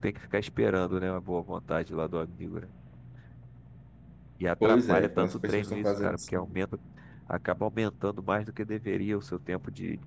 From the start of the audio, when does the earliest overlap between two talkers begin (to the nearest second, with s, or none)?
5 s